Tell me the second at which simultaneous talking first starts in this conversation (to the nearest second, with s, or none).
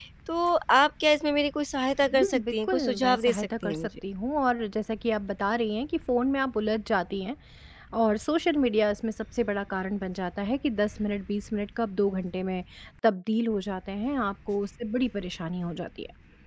2 s